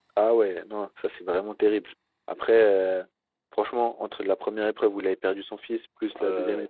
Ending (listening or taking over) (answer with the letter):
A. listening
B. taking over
A